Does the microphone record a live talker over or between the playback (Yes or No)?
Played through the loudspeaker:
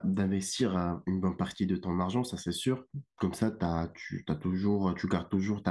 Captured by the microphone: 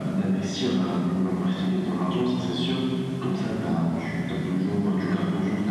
No